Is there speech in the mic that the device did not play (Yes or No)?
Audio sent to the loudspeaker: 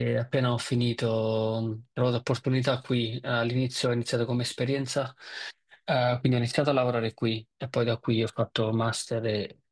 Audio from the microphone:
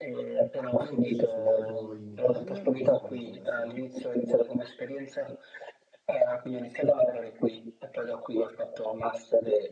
Yes